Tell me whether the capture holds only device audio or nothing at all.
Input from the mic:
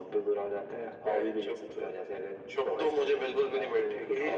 Yes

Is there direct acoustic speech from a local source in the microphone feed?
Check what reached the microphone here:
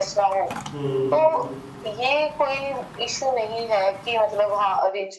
Yes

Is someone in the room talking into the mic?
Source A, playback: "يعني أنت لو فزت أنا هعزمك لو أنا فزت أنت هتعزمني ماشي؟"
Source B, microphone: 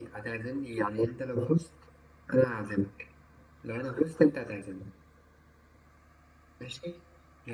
No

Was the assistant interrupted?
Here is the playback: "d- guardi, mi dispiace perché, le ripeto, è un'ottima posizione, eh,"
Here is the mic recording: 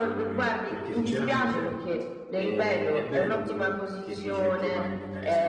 Yes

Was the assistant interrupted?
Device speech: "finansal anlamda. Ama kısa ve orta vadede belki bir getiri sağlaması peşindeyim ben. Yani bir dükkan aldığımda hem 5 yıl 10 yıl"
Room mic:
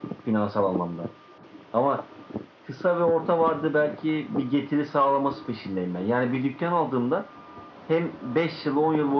No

